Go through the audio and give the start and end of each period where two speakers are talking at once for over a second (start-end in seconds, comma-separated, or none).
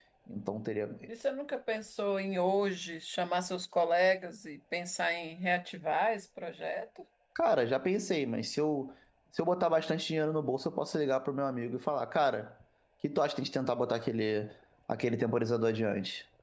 none